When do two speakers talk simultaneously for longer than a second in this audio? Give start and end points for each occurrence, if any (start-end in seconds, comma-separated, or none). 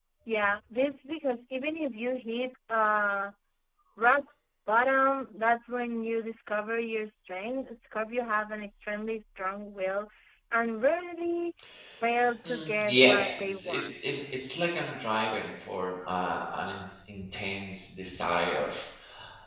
12.4-14.0